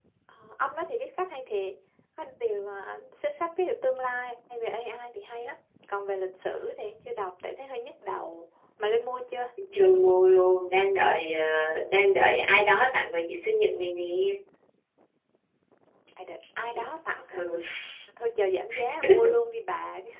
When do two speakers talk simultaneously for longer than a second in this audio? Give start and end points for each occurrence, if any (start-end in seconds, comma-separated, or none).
none